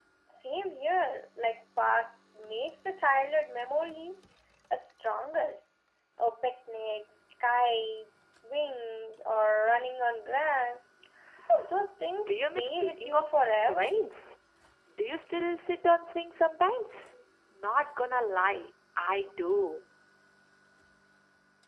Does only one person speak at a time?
No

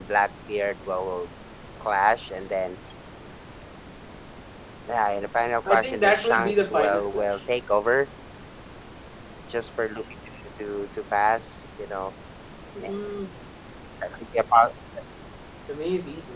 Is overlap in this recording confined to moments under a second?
No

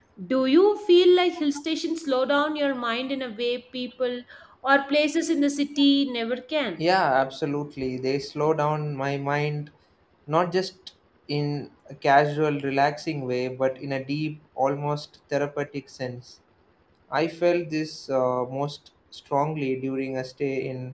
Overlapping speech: No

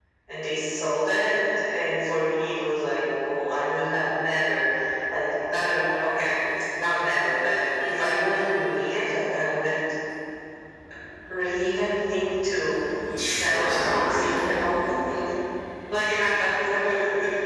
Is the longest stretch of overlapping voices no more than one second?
No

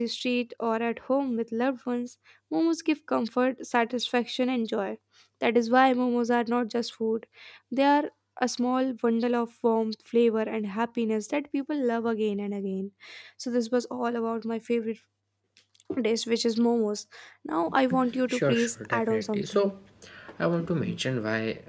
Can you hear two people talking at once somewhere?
Yes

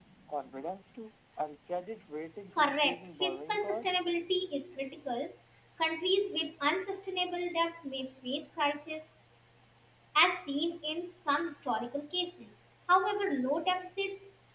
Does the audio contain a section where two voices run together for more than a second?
Yes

